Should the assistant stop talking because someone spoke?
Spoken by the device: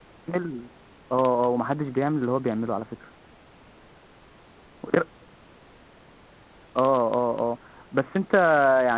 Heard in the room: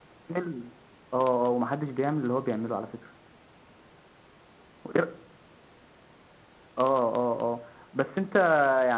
No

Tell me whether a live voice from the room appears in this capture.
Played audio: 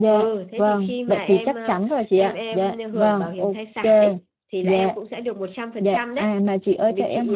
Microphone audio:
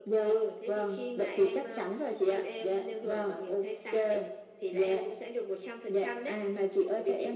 No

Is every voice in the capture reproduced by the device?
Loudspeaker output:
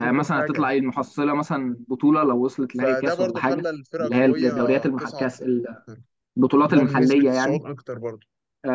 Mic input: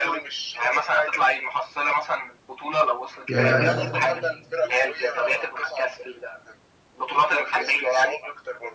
No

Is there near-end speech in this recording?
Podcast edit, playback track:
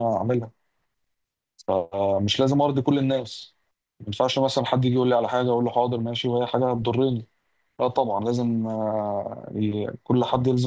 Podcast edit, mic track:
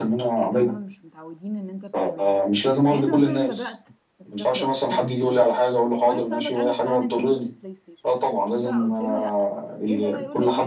Yes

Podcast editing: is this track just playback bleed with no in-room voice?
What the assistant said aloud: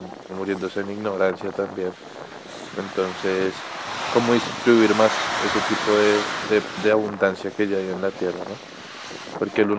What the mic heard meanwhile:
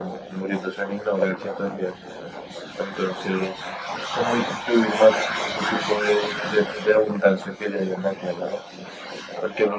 Yes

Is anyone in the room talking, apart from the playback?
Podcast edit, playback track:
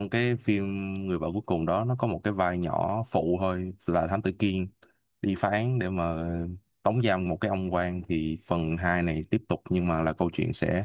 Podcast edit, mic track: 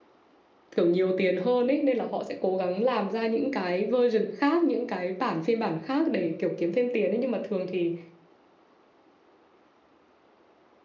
Yes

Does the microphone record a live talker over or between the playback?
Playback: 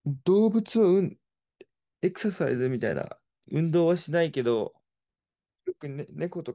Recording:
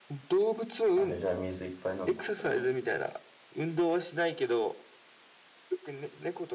Yes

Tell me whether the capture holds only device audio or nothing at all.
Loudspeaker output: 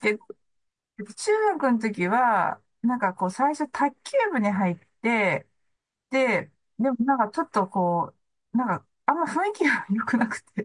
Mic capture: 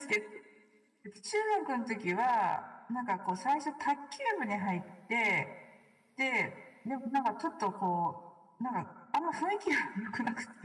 Yes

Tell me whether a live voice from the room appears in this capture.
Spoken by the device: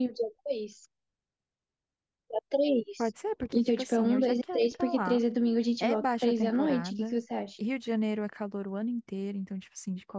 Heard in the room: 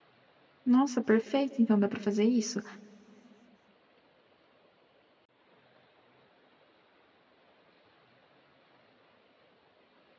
Yes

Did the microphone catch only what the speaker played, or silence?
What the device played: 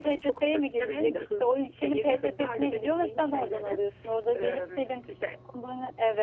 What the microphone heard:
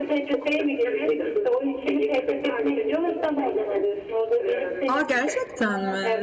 No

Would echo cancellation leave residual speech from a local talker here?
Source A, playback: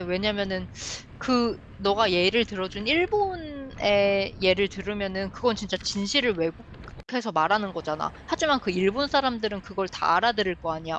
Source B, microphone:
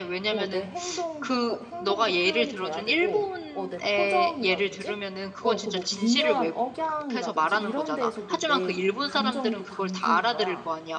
Yes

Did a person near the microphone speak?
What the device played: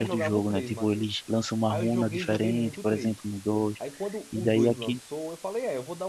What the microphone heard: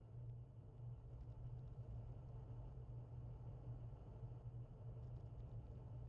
No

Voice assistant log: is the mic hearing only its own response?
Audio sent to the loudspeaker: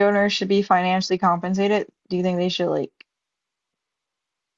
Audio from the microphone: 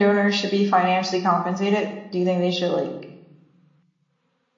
Yes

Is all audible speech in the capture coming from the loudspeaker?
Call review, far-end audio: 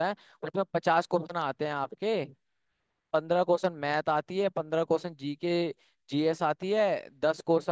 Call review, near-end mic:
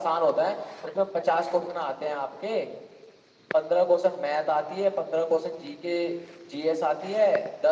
Yes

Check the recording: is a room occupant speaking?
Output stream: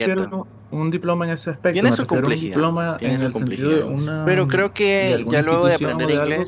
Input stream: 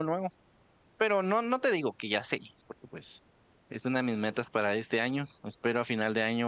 Yes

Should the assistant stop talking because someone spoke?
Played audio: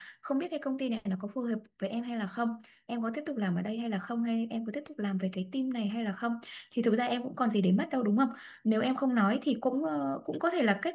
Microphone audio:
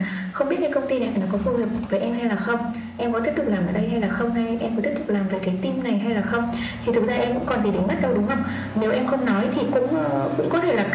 No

